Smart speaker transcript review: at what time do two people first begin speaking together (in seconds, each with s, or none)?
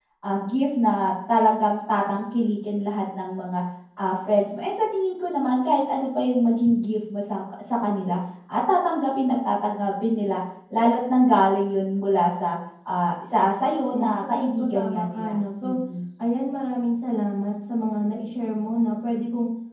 13.8 s